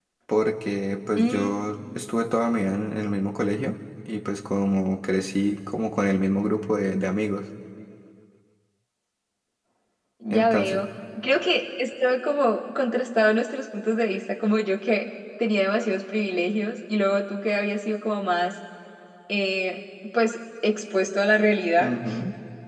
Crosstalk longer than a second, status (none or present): none